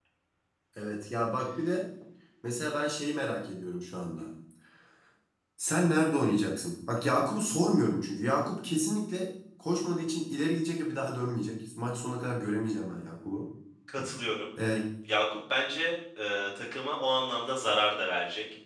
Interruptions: none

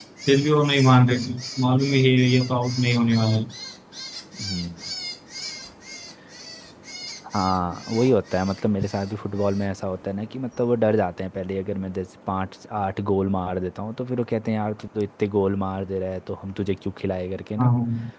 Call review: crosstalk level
none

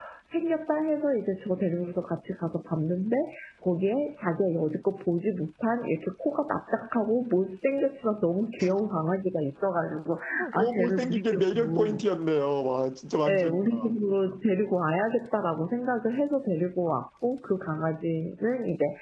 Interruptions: present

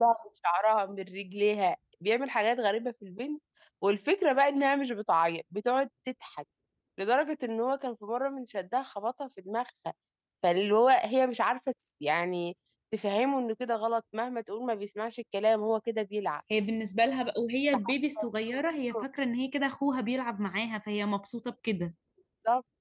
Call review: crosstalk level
none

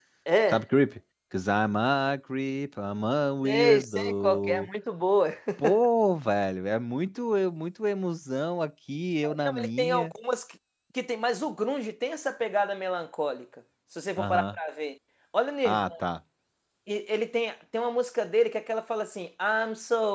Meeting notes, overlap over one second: present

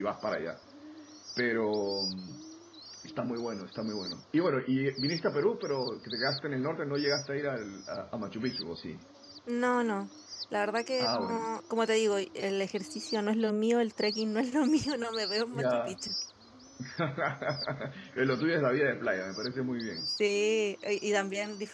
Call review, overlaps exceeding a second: none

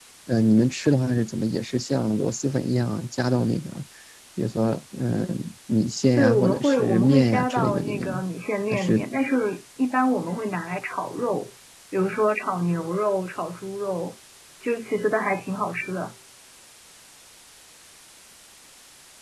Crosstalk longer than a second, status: present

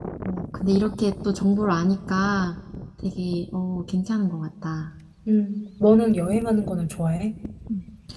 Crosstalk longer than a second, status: none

